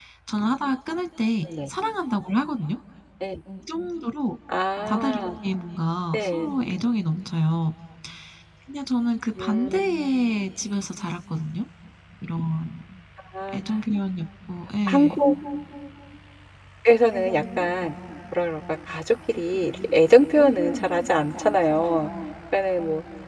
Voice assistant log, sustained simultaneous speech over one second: none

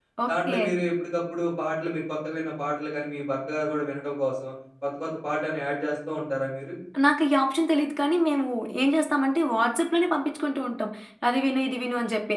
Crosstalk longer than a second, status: none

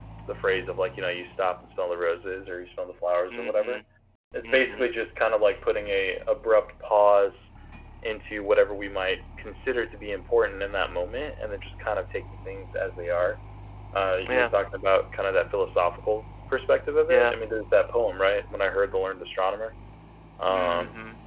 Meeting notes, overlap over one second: none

